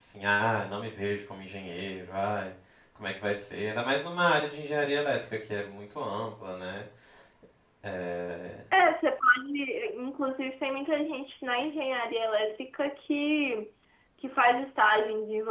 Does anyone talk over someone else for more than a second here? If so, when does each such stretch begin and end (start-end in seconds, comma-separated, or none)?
none